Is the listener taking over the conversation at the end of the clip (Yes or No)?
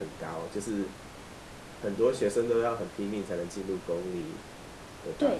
Yes